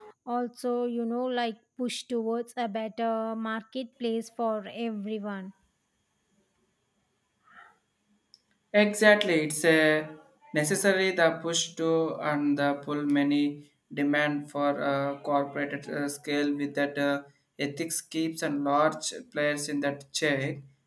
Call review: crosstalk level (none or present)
none